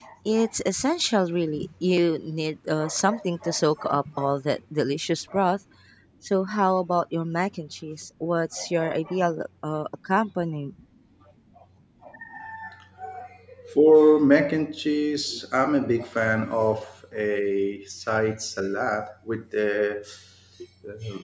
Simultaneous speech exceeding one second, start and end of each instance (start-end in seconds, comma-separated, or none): none